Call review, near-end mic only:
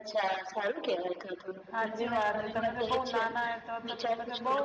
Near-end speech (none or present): present